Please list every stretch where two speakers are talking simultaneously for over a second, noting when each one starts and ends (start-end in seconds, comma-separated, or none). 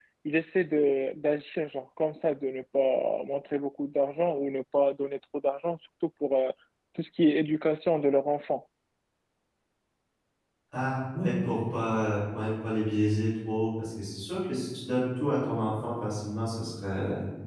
none